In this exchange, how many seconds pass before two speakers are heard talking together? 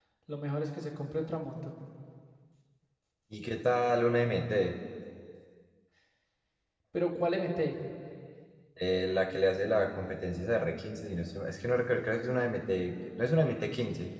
none

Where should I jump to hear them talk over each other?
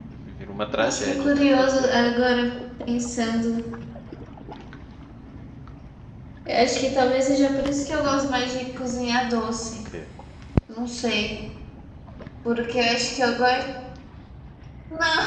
1 s

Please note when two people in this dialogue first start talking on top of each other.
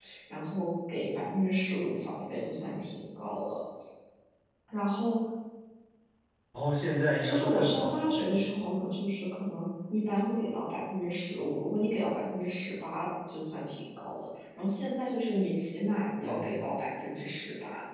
7 s

